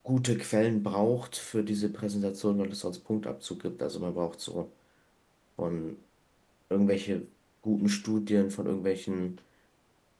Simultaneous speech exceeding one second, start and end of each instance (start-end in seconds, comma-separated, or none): none